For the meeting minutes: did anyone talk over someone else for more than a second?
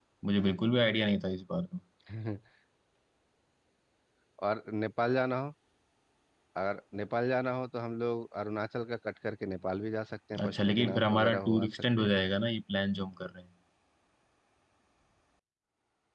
Yes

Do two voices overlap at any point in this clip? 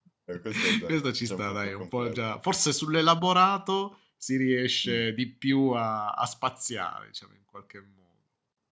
Yes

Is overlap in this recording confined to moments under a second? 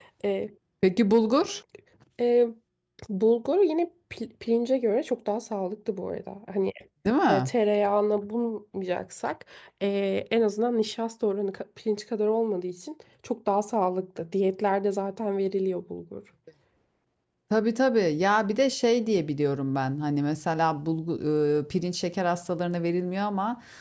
Yes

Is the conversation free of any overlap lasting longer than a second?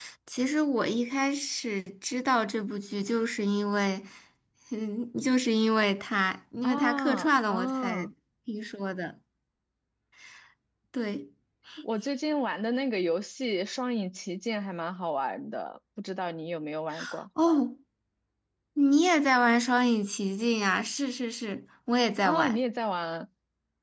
No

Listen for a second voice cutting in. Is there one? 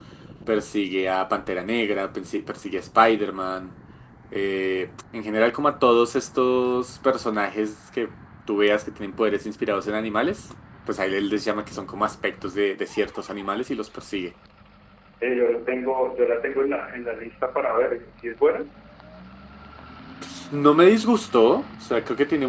No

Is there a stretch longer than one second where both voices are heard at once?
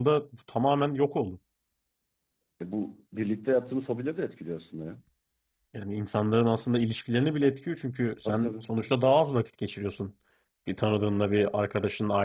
No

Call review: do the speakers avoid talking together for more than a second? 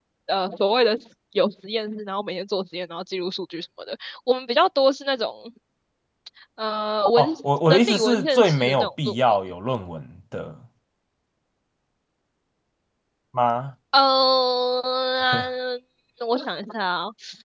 No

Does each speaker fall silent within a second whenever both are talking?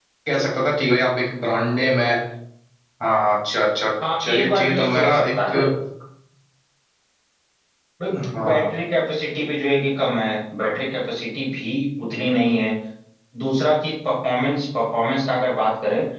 No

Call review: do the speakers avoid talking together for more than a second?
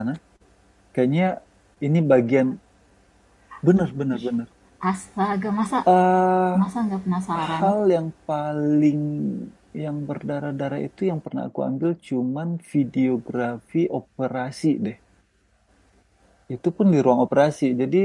Yes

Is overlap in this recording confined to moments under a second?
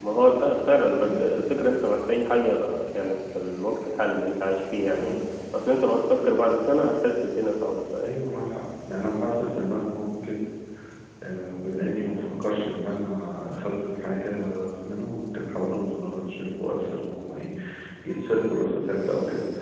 Yes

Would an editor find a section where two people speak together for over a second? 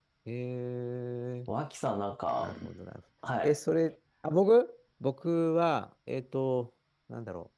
No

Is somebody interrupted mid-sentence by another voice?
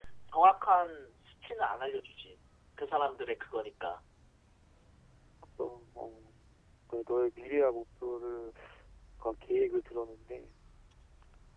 No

